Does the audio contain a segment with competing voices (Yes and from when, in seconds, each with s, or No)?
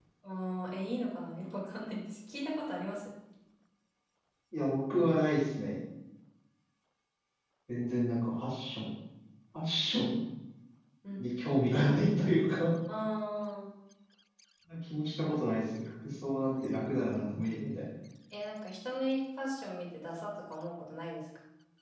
No